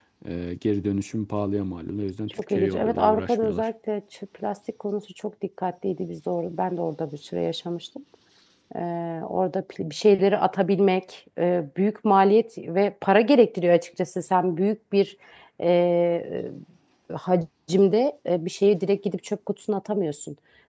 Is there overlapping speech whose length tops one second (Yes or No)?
Yes